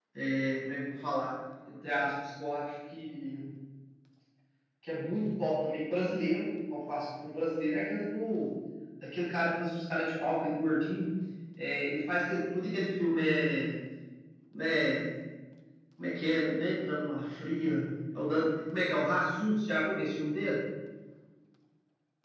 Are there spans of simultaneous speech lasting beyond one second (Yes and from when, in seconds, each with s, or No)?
No